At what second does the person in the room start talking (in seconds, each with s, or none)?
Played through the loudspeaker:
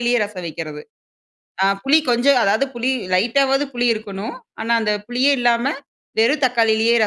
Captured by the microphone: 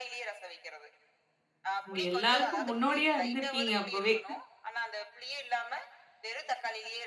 1.9 s